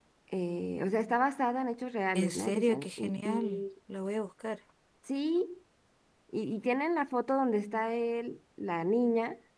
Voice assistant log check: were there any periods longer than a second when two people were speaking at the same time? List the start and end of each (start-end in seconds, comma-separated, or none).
2.1-3.6